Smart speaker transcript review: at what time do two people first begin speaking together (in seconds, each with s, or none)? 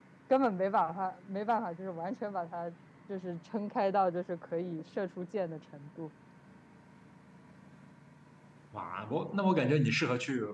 none